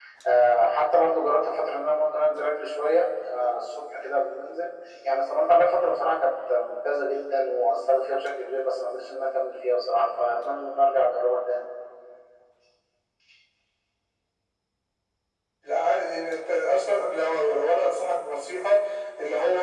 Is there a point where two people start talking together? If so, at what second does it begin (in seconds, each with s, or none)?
none